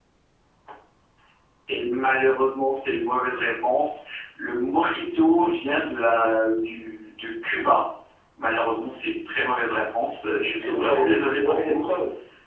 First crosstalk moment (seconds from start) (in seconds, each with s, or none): 10.4 s